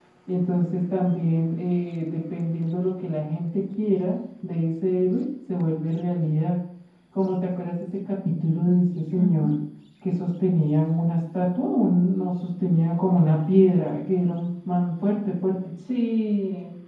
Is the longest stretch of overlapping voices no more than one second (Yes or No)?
Yes